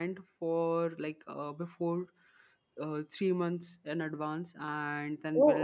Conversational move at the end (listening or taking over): listening